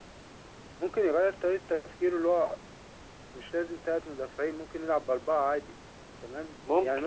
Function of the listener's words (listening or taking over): listening